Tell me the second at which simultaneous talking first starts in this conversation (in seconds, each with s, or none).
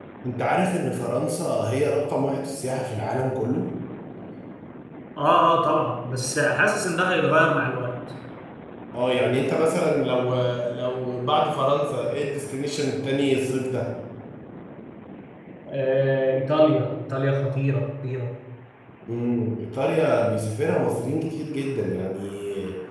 none